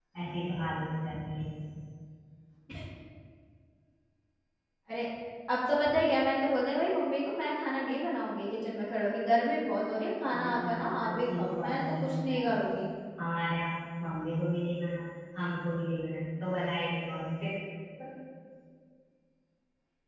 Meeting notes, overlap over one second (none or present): present